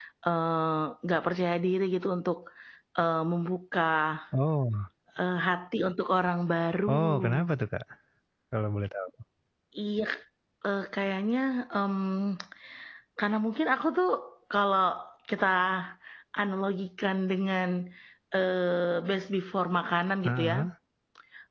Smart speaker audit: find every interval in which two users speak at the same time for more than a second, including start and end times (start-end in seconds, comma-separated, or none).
none